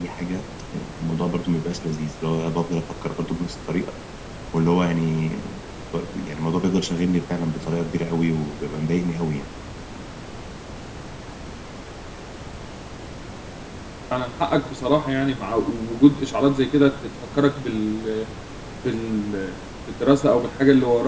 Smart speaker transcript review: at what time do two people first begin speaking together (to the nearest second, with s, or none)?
none